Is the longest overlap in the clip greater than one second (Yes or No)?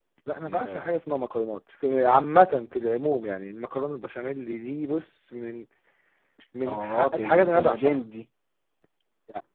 Yes